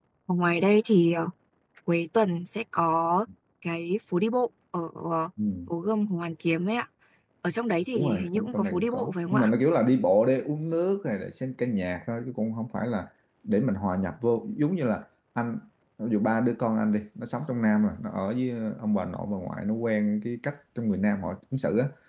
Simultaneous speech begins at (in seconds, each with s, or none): 8.0 s